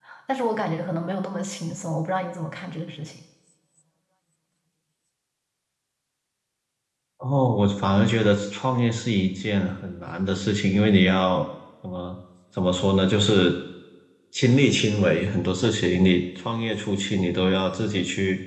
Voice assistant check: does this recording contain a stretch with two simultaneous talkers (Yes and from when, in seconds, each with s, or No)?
No